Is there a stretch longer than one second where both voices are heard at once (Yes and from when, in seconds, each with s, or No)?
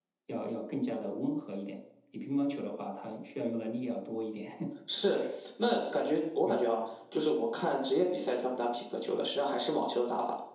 No